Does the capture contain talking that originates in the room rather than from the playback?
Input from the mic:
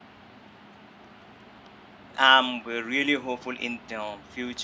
Yes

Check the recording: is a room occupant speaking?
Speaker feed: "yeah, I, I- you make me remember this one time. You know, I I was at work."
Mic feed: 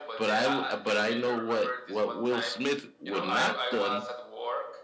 Yes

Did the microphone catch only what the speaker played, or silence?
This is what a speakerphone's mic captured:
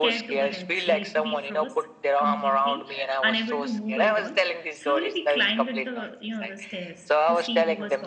No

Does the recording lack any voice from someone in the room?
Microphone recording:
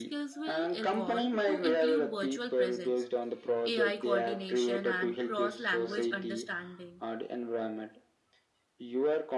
No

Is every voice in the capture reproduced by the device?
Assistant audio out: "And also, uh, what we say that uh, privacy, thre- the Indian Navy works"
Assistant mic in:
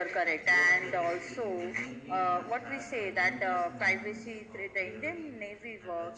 No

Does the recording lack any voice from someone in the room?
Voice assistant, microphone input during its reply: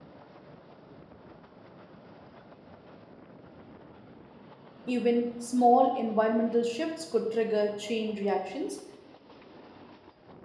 No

